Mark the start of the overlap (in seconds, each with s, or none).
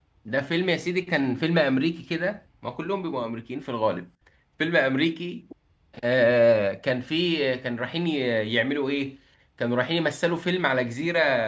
none